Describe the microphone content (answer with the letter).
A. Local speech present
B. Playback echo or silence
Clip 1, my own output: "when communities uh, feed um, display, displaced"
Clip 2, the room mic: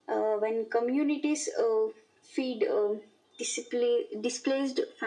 B